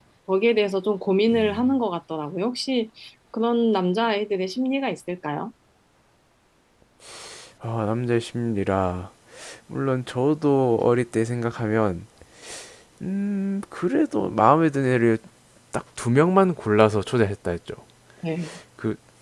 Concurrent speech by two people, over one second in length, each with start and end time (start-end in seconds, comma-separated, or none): none